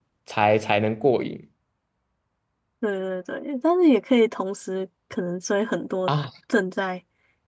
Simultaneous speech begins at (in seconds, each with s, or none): none